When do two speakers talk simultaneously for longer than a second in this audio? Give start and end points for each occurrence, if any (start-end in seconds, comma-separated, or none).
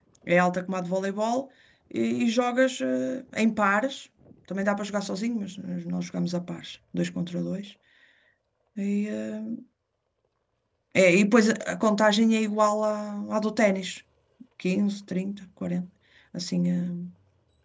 none